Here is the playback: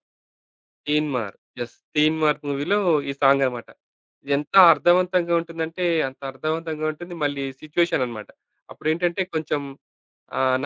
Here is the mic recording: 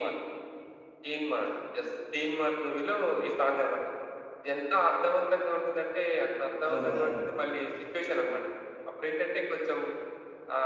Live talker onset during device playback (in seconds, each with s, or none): 6.7 s